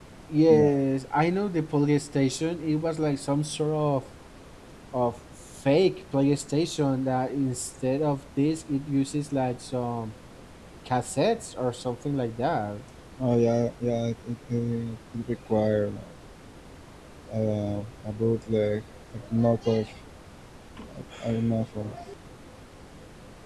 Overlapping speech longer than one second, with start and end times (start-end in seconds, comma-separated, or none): none